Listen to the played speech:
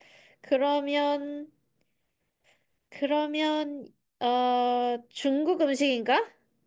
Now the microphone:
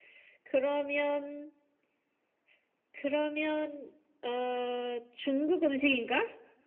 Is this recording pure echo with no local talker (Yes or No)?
Yes